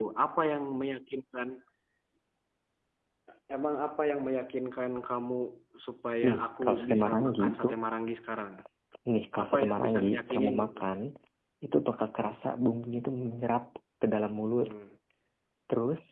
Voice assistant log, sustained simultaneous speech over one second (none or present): present